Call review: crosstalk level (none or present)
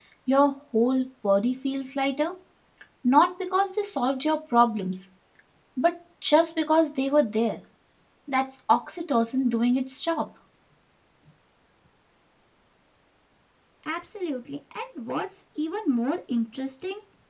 none